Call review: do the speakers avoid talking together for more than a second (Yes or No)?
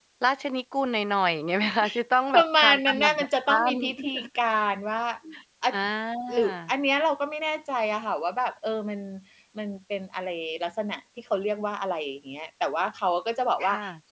No